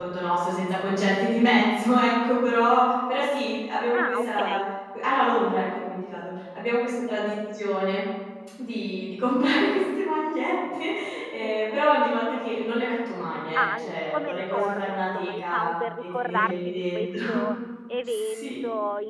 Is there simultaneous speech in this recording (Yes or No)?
Yes